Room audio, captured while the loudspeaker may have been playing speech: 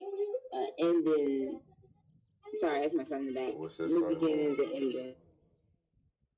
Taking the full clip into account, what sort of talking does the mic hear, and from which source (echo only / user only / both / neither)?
both